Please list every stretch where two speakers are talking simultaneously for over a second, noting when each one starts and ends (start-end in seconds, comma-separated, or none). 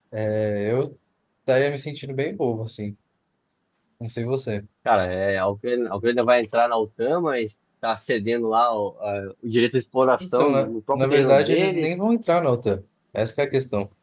10.2-11.9